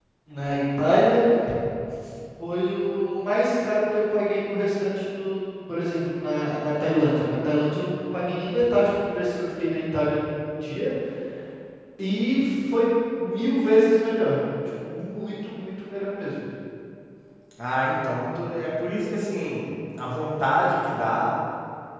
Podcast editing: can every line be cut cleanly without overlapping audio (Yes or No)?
Yes